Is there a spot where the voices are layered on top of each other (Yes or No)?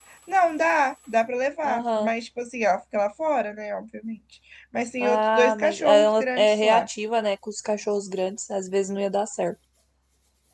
Yes